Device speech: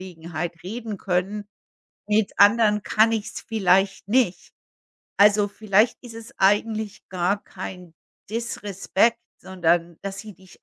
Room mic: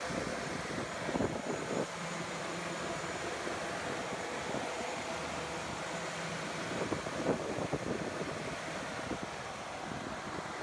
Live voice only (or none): none